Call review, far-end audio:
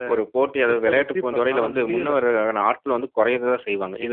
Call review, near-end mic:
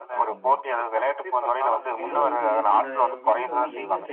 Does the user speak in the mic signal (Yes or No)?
Yes